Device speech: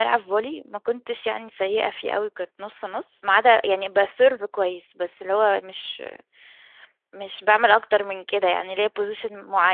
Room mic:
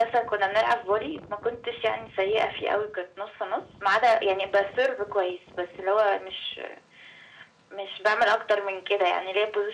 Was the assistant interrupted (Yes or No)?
No